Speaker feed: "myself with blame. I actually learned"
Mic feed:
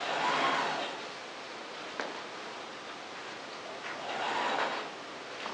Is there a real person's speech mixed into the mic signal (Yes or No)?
No